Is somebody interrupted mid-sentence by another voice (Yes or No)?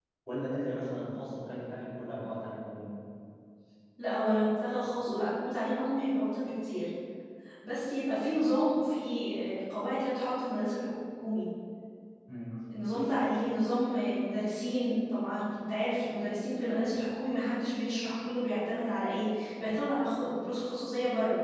No